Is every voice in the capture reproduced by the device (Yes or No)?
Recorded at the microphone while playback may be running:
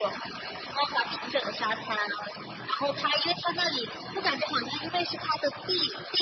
Yes